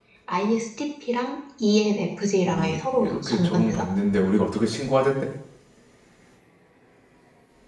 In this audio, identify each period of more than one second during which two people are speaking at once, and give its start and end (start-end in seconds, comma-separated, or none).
2.4-3.8